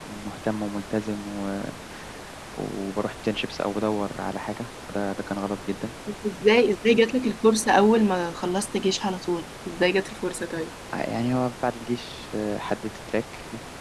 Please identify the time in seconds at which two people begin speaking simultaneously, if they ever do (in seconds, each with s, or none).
none